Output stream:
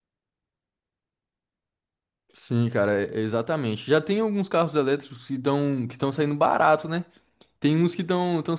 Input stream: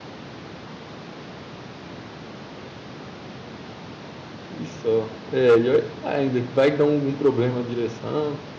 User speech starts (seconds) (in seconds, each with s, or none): 4.5 s